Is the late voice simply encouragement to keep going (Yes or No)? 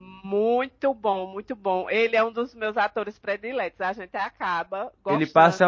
No